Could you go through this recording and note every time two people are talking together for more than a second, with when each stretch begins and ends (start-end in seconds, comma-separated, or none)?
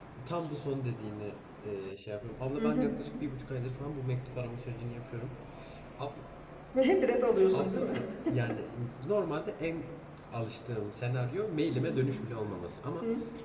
none